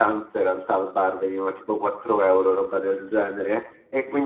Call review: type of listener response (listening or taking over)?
listening